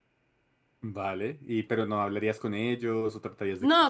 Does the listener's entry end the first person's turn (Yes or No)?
Yes